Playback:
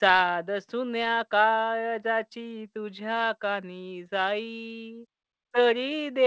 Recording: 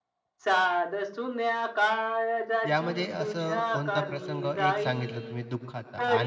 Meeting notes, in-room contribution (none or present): present